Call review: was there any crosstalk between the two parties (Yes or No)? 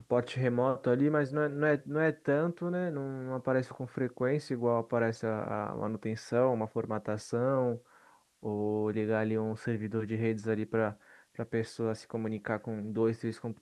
No